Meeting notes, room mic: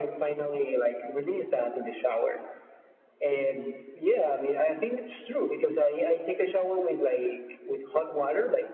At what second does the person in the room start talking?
none

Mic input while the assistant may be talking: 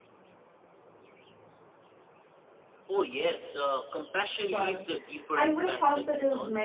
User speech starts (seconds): 4.5 s

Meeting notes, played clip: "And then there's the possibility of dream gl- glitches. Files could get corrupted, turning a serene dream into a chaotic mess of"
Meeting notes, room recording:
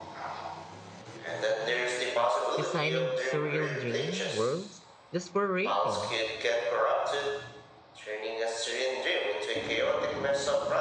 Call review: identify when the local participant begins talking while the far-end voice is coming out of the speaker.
2.5 s

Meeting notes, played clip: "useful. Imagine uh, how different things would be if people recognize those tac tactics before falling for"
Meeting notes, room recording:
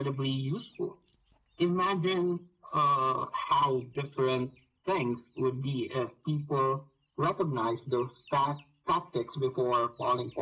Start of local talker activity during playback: none

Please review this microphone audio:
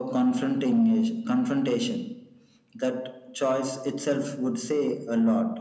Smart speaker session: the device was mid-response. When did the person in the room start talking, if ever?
none

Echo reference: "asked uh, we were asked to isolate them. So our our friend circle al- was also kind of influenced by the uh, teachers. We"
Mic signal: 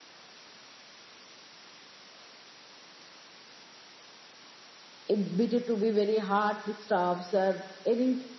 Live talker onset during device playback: 5.1 s

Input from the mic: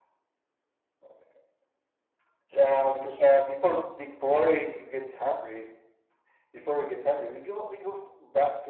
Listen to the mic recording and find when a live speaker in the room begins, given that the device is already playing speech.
none

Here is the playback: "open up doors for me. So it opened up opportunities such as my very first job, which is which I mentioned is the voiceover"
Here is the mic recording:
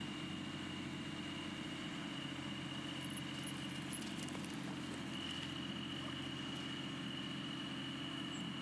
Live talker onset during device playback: none

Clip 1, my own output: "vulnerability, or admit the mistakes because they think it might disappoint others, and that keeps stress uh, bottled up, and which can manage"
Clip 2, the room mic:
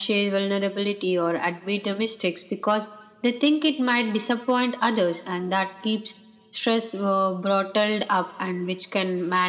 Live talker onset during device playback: none

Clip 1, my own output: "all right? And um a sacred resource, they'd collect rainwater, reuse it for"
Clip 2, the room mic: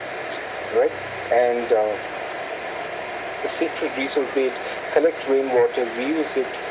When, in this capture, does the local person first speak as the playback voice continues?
none

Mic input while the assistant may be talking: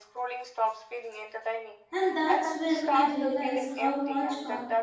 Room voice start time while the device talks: 1.9 s

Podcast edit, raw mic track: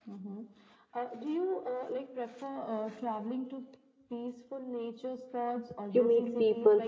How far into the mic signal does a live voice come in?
5.9 s

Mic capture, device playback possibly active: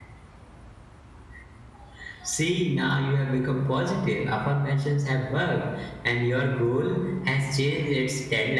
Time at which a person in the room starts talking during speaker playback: none

